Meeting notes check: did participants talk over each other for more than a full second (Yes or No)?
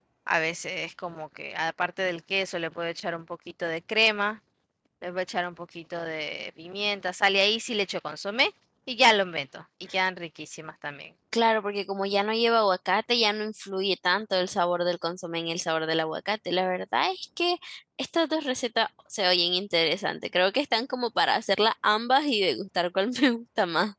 No